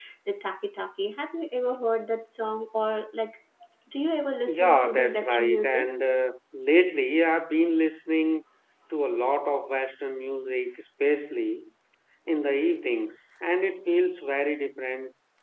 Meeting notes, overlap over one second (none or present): present